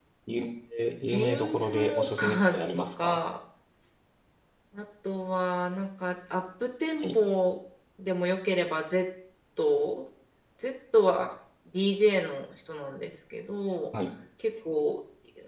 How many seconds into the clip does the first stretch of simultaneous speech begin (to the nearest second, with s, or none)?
1 s